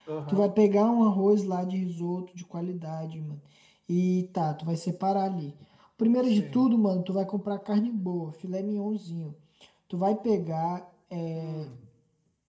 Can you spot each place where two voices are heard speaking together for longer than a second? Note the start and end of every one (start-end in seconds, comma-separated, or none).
none